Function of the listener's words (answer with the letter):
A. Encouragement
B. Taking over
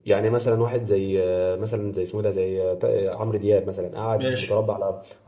A